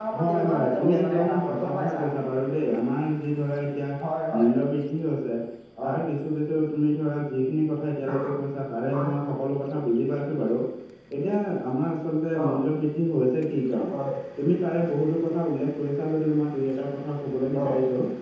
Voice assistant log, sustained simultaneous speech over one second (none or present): present